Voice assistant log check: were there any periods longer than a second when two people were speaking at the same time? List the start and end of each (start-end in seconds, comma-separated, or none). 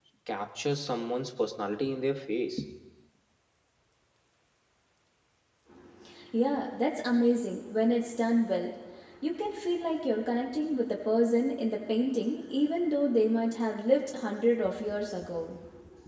none